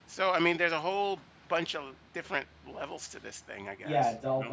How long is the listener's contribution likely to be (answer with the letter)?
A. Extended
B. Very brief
A